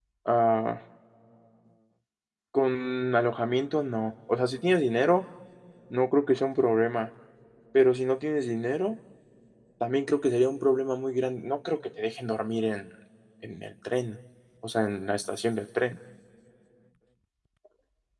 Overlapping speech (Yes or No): No